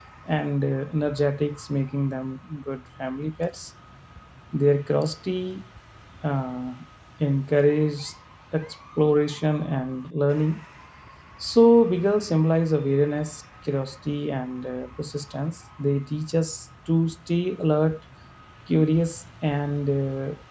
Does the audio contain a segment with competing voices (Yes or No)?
No